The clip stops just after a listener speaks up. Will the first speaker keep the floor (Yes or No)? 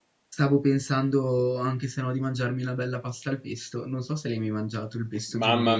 No